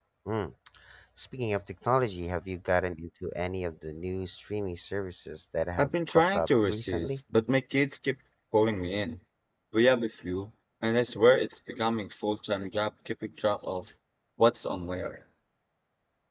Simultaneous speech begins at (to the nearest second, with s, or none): 6 s